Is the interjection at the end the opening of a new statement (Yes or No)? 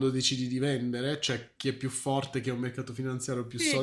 Yes